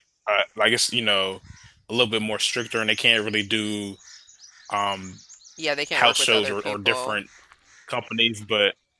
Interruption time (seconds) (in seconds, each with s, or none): 5.9 s